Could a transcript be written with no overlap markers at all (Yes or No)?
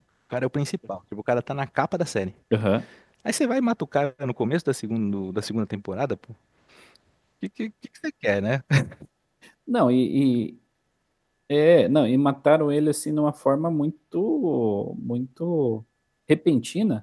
Yes